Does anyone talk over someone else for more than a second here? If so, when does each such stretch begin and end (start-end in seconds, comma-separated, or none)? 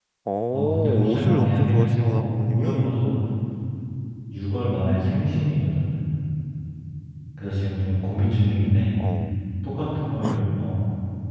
0.5-3.0